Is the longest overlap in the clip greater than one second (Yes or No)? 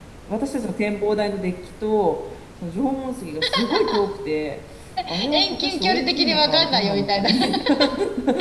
Yes